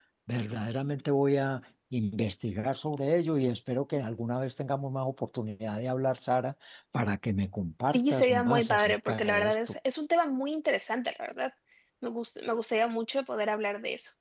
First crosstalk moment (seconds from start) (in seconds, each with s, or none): 7.9 s